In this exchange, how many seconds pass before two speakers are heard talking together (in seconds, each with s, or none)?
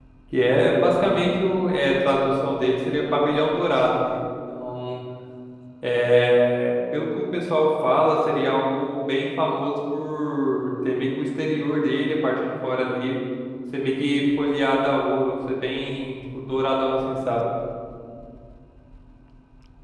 none